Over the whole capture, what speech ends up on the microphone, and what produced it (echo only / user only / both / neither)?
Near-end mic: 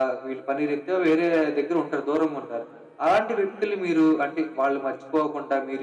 echo only